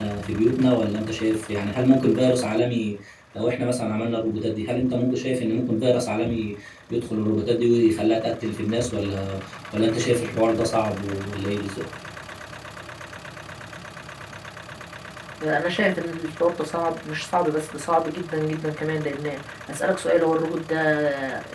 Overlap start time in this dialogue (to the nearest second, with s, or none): none